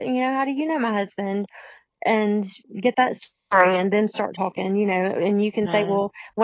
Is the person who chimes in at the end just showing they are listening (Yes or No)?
Yes